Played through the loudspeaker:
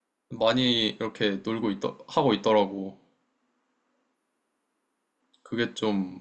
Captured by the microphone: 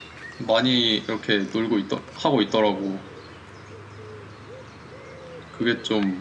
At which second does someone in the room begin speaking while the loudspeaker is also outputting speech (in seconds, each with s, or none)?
none